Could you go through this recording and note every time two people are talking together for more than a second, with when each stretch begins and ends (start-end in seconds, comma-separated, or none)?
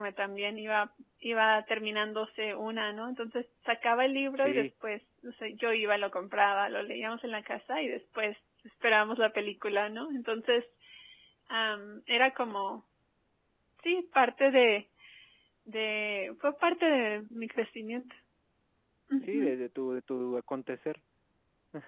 none